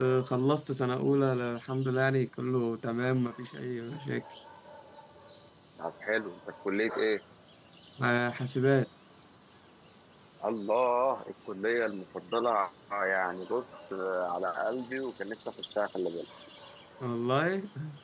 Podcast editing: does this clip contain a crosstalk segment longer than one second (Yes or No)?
No